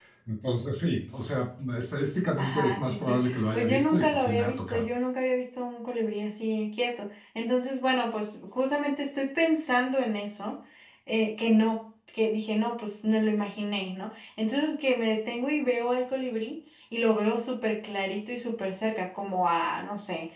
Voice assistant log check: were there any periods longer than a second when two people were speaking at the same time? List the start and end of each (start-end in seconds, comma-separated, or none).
2.4-4.9